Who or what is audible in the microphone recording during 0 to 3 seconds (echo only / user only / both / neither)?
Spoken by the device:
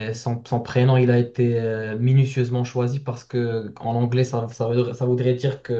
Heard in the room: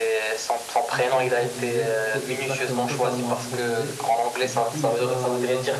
both